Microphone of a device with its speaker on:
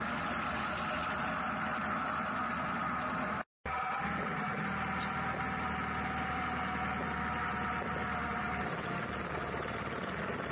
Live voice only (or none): none